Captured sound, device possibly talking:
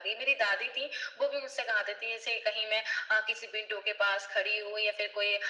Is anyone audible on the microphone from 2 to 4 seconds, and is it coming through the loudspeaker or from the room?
echo only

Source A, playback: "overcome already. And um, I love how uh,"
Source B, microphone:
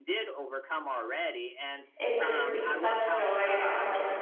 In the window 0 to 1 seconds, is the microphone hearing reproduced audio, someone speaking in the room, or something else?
echo only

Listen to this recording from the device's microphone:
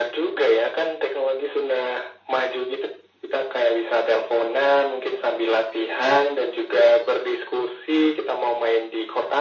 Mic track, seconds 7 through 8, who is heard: echo only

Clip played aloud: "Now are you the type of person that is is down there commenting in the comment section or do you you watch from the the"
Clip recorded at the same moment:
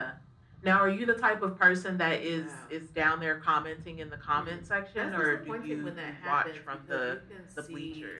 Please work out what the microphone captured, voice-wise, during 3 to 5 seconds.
both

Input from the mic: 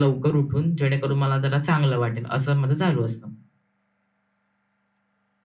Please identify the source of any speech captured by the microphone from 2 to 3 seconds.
echo only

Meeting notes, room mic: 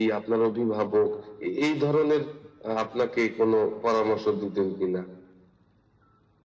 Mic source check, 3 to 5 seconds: echo only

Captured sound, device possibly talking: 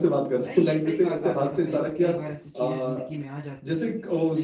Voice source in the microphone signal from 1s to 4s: both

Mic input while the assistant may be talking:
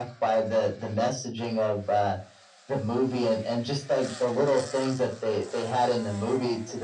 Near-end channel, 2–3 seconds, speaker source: echo only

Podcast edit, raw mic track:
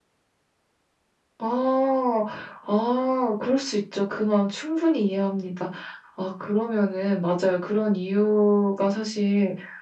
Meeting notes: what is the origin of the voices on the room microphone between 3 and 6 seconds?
echo only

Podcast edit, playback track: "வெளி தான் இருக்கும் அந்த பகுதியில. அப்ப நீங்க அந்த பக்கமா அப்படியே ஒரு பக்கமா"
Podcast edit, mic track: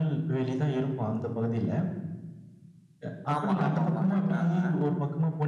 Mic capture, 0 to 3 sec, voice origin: echo only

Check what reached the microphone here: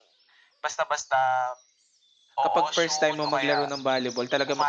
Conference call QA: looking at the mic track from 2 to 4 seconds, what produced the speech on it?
both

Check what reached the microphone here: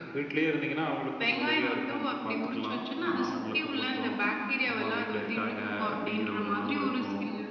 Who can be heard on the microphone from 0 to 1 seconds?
echo only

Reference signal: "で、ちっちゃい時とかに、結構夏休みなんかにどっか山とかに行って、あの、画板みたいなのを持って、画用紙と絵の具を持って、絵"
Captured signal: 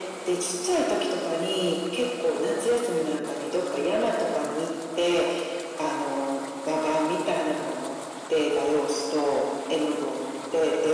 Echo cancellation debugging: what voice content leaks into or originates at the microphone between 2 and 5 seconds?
echo only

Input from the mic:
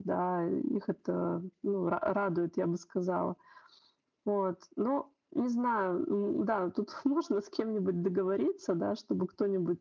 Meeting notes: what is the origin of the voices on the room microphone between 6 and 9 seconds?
echo only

